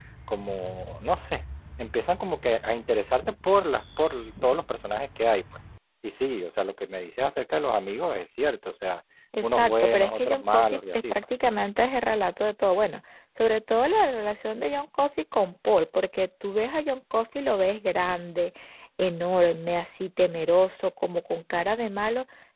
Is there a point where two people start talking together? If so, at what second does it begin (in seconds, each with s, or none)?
9.4 s